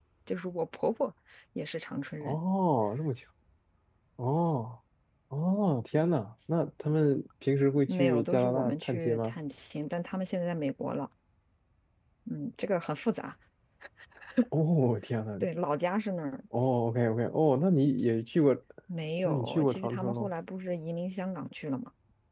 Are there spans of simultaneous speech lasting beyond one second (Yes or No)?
Yes